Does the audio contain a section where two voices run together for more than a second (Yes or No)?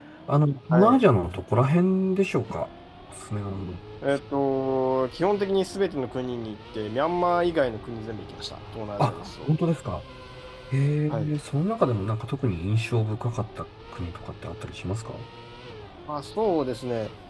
No